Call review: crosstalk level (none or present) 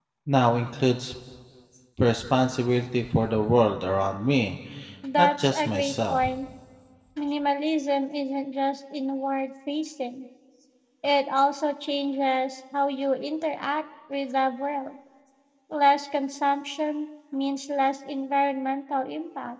present